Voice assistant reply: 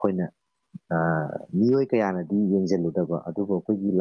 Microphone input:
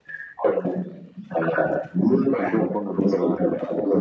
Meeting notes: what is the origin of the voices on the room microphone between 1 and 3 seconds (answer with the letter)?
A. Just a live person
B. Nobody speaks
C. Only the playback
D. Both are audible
D